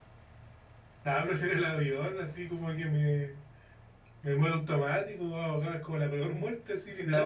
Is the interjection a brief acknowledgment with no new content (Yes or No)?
No